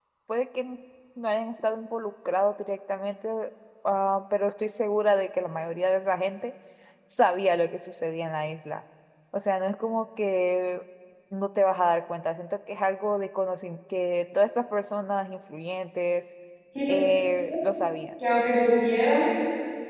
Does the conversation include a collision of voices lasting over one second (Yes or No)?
No